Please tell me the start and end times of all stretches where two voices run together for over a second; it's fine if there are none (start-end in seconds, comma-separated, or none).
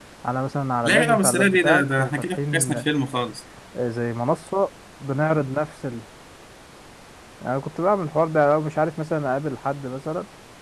0.8-2.8